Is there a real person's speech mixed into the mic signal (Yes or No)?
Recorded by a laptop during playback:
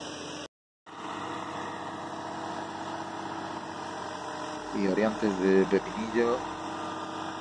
Yes